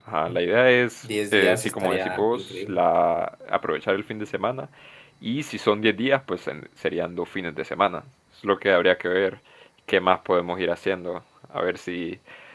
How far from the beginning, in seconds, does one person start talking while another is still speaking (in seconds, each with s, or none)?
1.3 s